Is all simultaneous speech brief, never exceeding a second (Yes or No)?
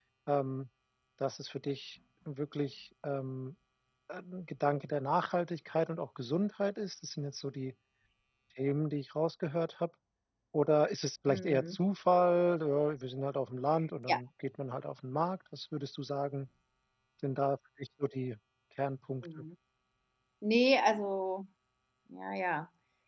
Yes